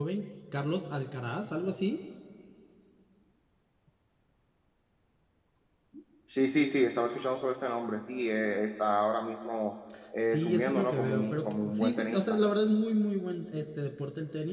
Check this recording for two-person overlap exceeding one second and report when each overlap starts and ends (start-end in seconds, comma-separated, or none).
10.2-12.4